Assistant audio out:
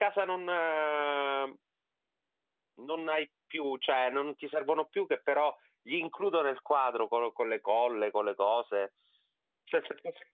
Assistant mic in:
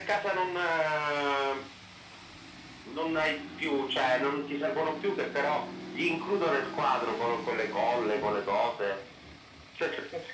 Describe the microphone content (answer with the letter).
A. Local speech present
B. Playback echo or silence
B